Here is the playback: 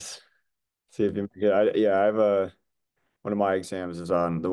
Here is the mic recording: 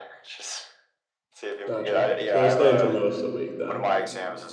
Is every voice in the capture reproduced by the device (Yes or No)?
No